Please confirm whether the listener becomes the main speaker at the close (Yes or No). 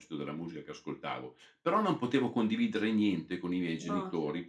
No